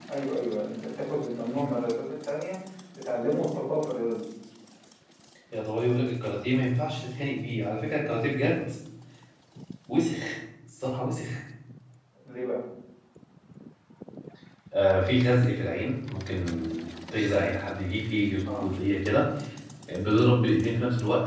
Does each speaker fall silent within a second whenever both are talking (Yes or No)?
Yes